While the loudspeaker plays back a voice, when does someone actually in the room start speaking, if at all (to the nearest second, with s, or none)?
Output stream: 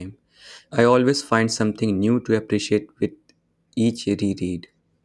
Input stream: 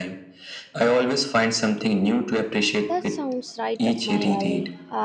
3 s